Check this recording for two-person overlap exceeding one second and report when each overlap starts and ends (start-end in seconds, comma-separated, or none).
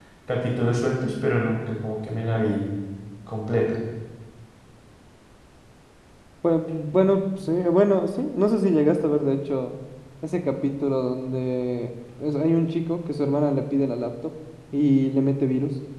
none